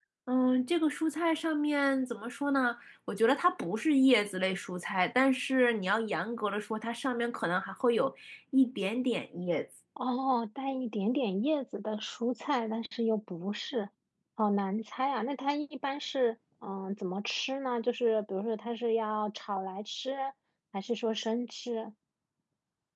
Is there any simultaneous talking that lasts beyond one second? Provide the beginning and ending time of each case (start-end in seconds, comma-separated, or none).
none